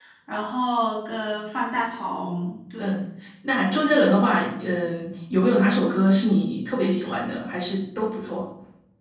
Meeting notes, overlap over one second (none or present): none